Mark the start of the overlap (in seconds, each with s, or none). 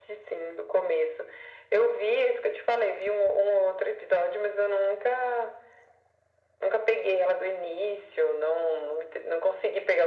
none